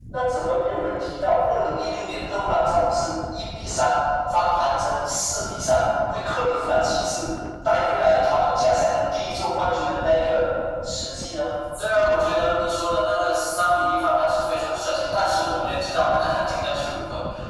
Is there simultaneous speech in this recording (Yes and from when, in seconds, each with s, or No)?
No